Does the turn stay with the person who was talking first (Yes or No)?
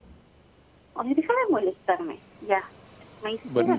No